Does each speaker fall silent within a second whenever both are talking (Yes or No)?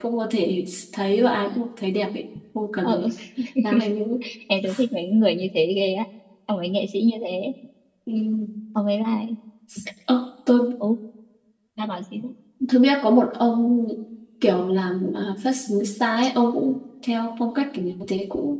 Yes